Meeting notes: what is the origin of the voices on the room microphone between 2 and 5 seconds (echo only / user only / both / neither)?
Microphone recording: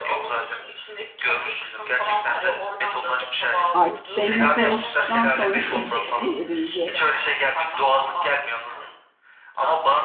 both